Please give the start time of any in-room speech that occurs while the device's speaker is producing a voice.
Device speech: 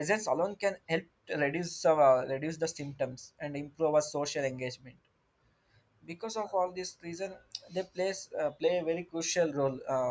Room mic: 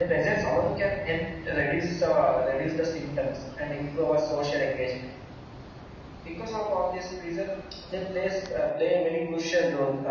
none

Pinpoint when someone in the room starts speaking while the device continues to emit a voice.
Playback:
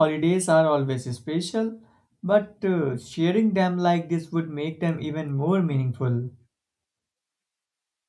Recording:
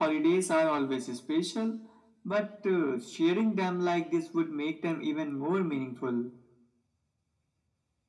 none

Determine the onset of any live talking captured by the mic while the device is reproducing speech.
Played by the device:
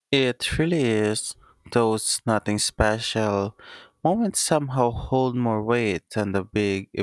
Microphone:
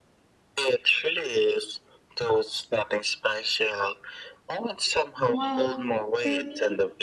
5.2 s

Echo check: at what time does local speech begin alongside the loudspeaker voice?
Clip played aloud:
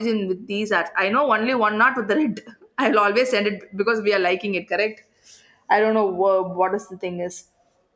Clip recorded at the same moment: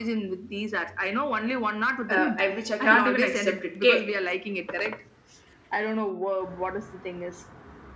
2.1 s

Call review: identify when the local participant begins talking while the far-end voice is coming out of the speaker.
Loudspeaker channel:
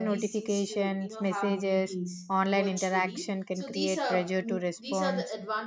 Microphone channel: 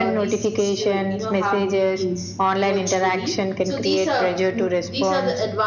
none

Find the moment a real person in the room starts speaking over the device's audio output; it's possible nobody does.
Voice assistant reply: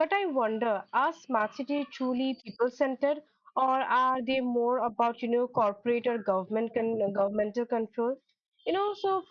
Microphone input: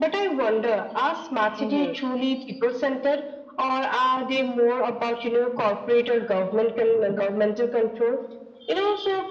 1.6 s

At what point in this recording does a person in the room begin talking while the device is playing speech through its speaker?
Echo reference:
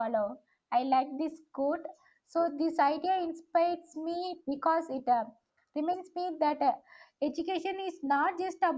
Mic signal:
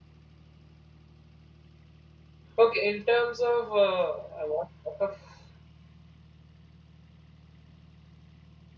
2.6 s

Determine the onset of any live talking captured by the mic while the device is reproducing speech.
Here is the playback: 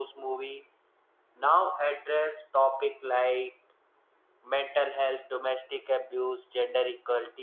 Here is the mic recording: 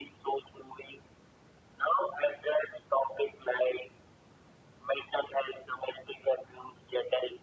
none

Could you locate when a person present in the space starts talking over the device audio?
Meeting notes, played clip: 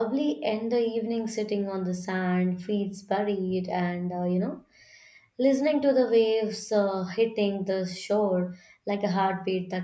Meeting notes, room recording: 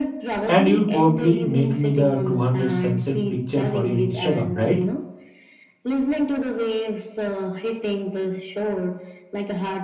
0.5 s

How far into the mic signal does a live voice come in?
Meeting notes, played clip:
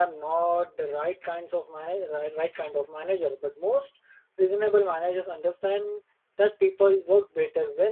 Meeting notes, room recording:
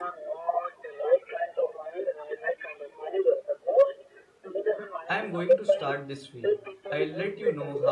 5.1 s

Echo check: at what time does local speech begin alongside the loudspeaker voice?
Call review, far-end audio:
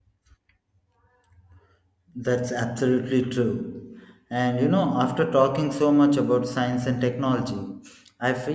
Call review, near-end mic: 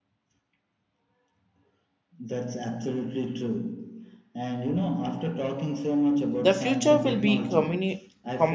6.4 s

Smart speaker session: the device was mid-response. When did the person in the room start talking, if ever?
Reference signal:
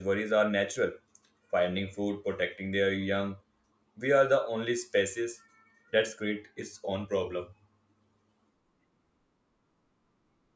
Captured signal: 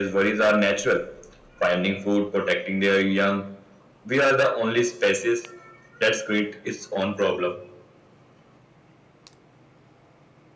none

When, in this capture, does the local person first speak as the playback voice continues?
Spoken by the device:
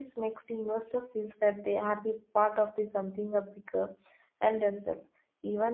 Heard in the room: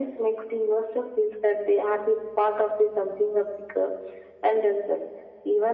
none

